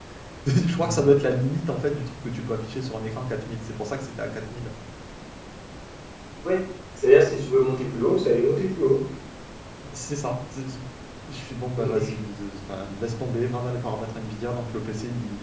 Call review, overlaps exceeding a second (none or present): none